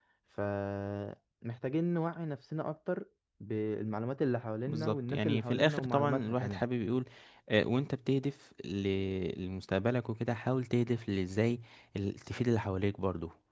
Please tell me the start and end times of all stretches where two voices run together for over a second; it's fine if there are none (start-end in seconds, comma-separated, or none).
4.7-6.6